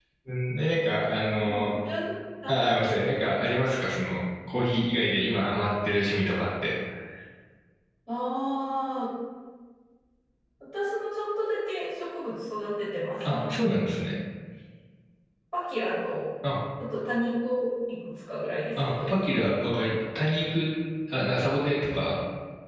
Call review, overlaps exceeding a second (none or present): none